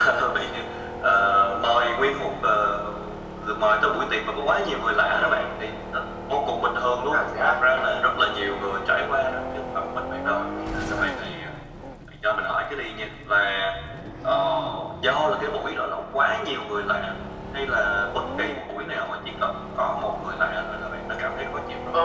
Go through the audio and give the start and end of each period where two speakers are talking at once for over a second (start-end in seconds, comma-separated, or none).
none